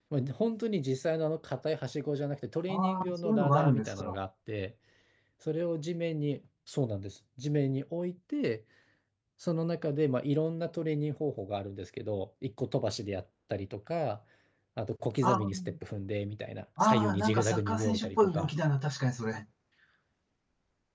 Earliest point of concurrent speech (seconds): 2.7 s

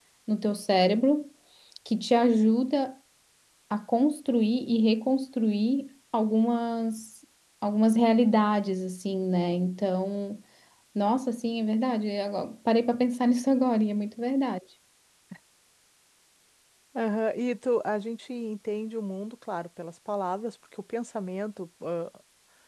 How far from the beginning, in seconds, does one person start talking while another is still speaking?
none

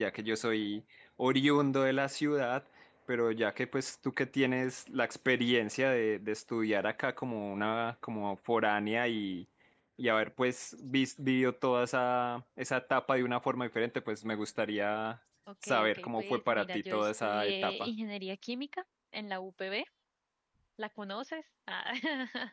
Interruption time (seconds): 15.6 s

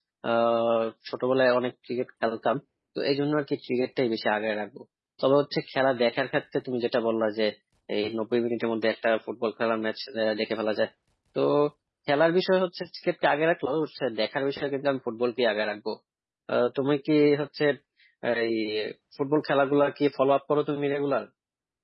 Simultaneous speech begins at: none

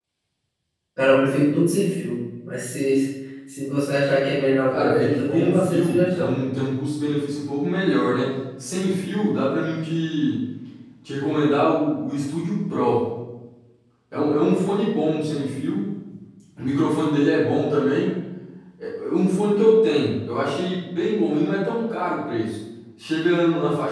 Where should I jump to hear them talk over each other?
4.7 s

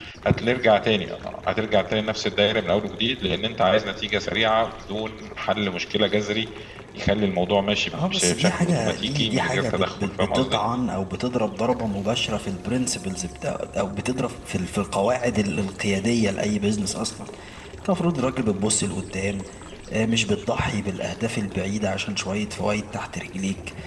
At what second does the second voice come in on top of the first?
7.9 s

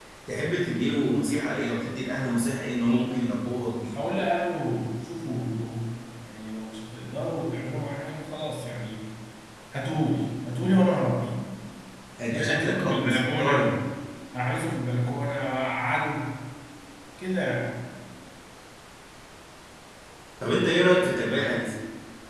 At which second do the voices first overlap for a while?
12.3 s

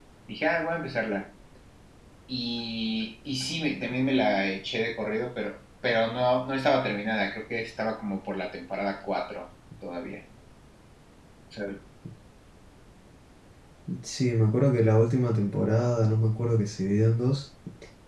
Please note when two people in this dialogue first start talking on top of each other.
none

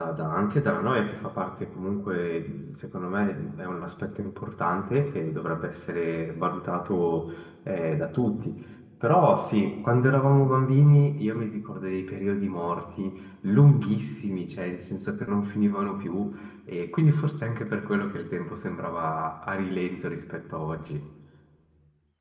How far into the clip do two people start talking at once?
none

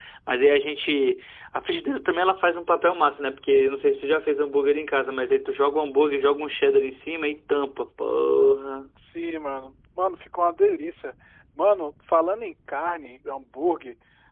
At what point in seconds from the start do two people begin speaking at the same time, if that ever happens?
none

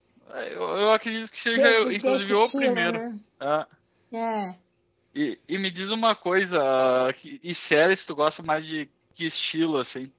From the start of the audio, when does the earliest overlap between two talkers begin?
1.6 s

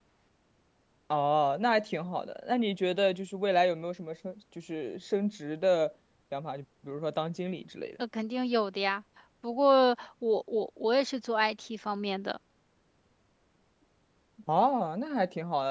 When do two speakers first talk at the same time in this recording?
none

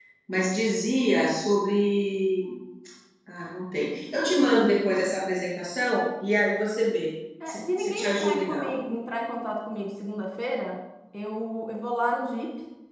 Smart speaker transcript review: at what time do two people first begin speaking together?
7.4 s

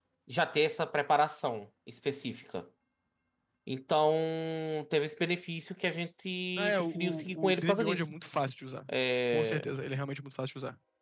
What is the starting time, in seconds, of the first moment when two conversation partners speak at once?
6.6 s

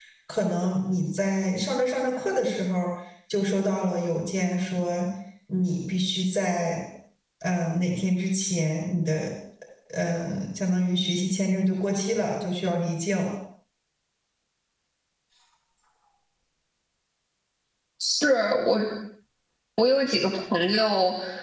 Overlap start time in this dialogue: none

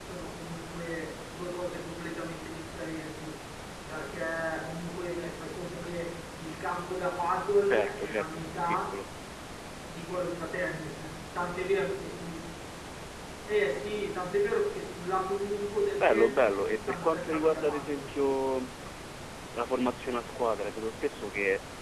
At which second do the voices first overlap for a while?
7.7 s

